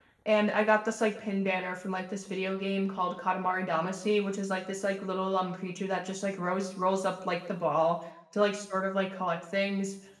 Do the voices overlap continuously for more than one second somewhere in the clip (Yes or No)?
No